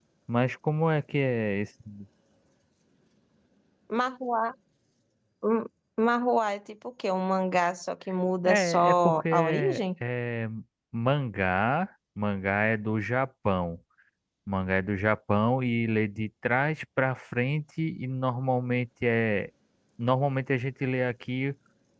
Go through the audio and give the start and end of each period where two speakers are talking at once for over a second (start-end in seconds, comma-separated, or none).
8.4-9.8